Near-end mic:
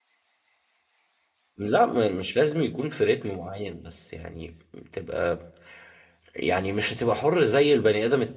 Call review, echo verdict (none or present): none